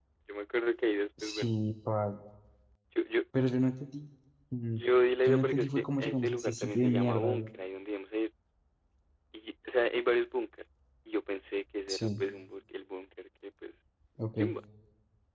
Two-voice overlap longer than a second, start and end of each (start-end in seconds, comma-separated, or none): 5.2-7.4